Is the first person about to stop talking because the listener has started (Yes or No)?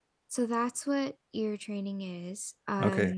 Yes